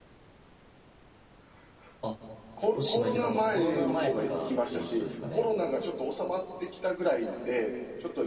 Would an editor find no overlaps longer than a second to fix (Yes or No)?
No